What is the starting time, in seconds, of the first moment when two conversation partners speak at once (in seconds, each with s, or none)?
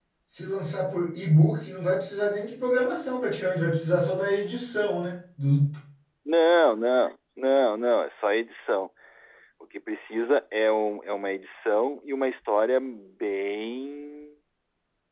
none